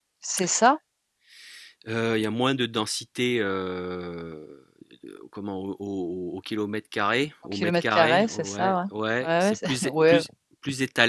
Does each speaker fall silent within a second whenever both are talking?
No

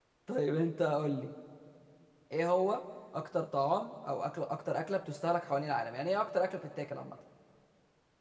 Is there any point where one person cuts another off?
No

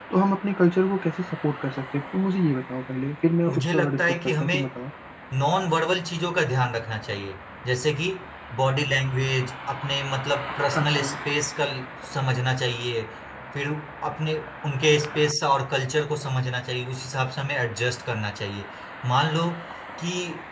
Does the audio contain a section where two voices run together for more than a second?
Yes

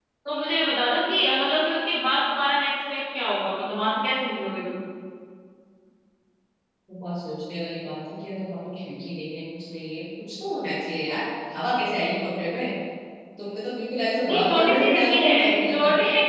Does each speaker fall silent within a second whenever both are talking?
No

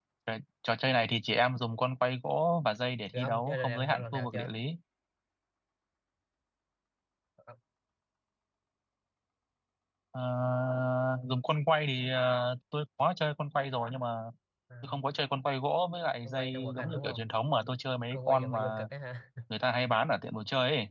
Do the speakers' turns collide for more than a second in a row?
Yes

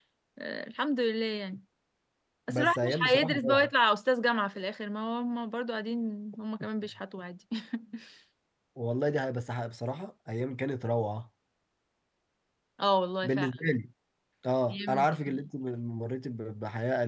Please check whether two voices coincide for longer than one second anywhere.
Yes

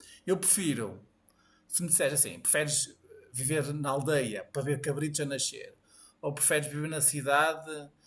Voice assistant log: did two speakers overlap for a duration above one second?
No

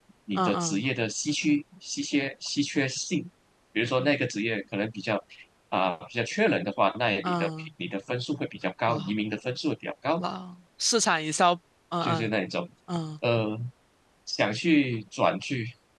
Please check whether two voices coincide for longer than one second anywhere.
No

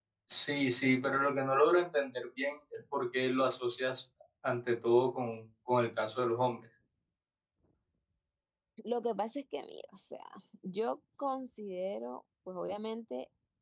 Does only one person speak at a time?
Yes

